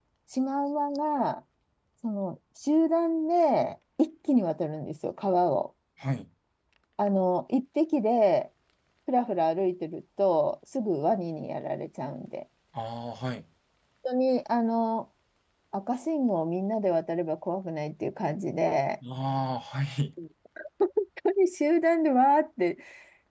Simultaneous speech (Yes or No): No